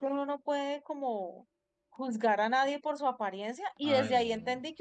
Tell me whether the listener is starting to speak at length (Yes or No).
No